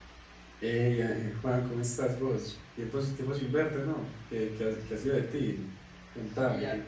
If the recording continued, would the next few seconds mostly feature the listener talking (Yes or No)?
Yes